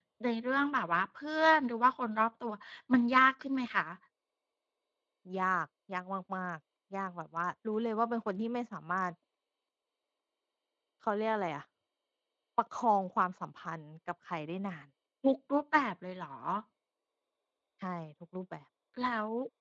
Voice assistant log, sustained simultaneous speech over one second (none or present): none